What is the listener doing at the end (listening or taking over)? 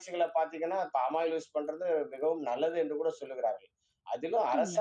listening